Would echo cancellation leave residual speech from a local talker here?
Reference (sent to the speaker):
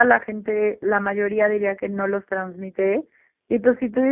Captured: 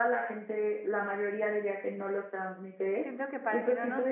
Yes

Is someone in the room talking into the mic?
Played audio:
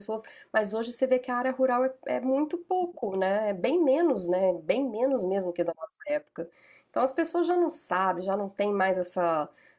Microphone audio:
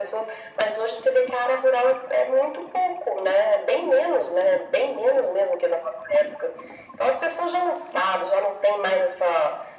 No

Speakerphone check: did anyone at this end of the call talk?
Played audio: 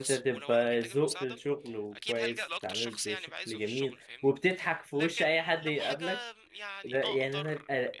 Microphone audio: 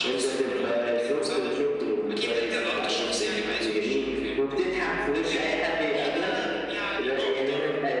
No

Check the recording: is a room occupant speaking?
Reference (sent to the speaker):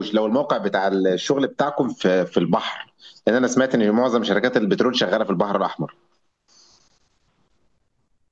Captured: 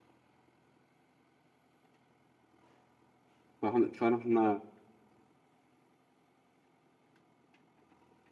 Yes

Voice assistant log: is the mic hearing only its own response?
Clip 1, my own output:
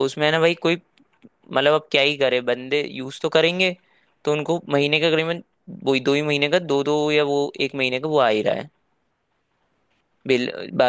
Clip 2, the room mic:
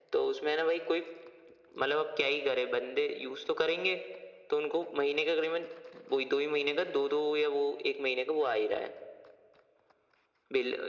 Yes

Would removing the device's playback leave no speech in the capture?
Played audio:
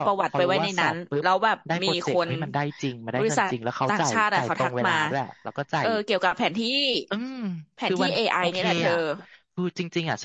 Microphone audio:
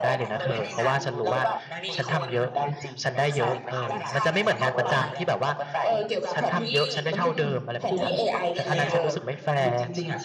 No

